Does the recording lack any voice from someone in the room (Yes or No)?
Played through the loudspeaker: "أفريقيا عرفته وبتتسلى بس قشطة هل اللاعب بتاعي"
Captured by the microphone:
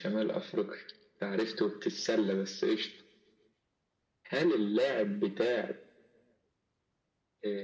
Yes